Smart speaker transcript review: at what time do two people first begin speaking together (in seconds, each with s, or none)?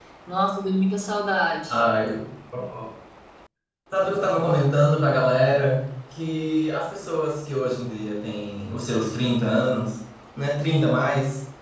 none